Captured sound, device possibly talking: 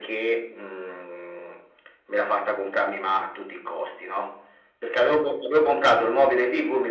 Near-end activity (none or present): none